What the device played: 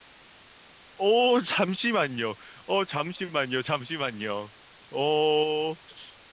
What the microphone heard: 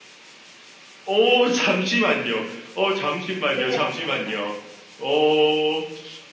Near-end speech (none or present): present